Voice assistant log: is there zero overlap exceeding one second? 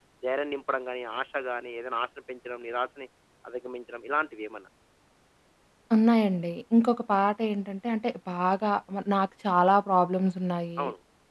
Yes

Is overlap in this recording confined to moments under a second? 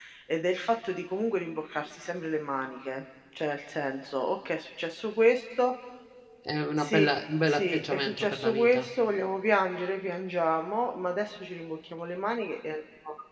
No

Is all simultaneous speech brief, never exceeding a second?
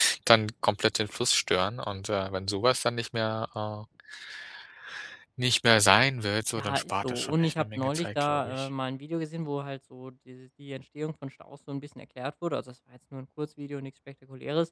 No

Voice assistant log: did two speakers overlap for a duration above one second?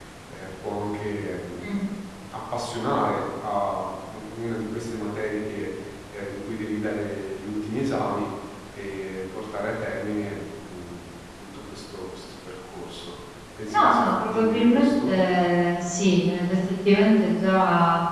Yes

